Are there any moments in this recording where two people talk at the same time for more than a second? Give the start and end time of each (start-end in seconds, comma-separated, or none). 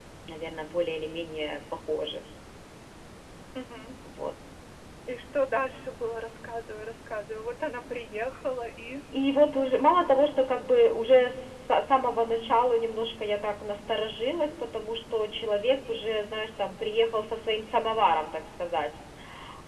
none